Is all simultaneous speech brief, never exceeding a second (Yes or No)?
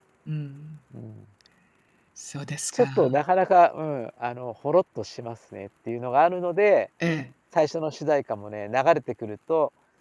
Yes